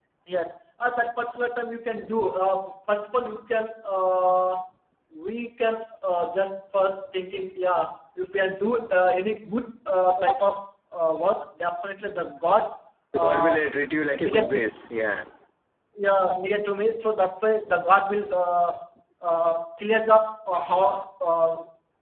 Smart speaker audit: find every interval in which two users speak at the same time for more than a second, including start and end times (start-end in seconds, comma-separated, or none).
none